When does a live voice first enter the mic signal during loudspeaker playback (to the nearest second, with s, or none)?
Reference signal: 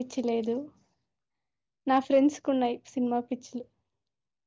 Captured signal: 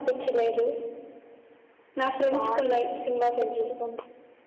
2 s